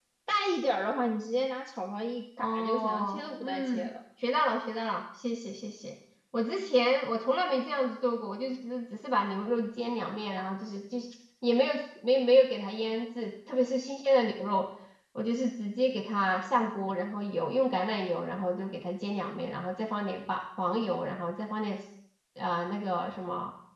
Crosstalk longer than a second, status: present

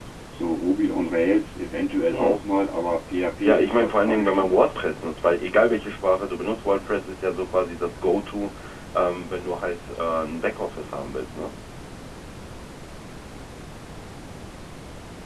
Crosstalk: present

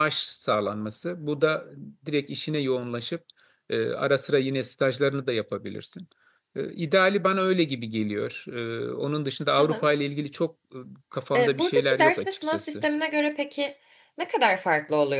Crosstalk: present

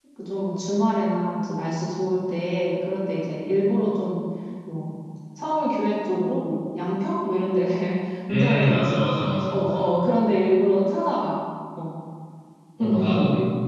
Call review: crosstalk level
present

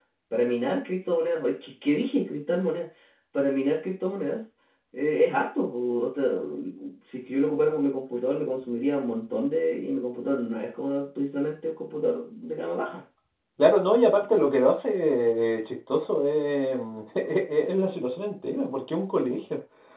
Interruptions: none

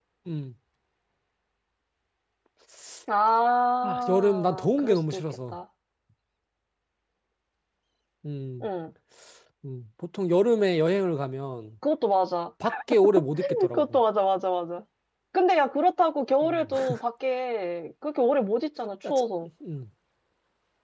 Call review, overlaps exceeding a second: present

